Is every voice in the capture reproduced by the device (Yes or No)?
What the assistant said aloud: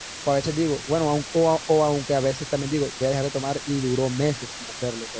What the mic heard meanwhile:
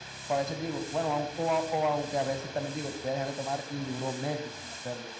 Yes